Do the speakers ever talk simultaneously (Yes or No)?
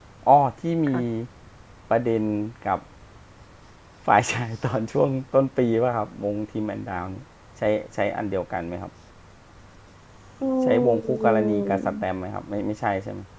Yes